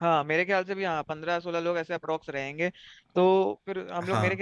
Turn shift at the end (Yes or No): No